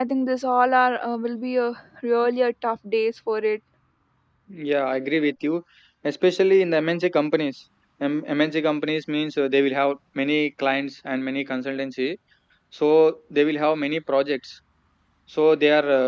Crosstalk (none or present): none